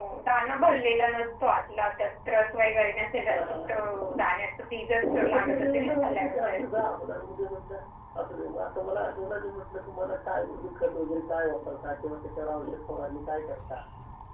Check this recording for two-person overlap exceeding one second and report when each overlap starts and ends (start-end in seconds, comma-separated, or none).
5.2-6.7